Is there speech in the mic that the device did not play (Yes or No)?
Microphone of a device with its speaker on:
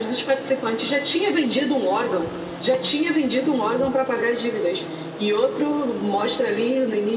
No